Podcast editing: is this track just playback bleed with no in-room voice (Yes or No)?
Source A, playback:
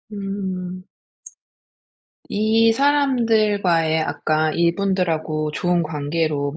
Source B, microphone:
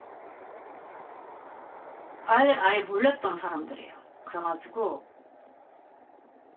No